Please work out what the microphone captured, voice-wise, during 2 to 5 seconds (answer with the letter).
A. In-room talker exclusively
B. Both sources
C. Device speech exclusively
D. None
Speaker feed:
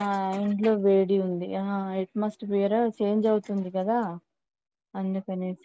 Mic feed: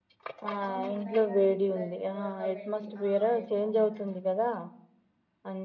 B